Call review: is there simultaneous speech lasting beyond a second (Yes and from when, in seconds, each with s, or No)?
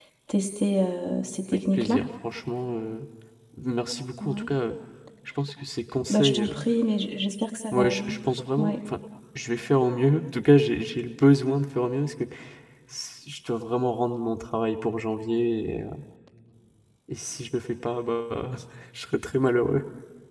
No